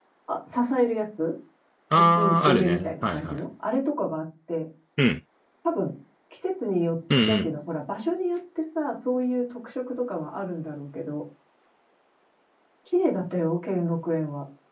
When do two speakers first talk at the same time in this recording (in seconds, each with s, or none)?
1.9 s